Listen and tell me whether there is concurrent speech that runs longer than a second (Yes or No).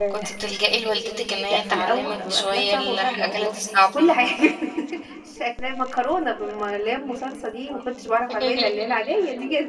Yes